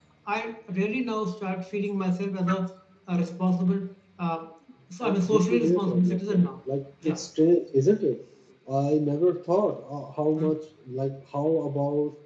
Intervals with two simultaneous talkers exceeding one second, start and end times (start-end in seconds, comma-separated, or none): 5.0-6.5